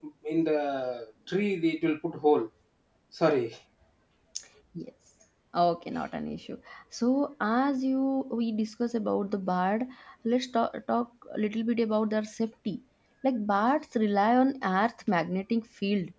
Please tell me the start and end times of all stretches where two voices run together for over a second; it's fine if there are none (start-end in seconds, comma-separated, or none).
none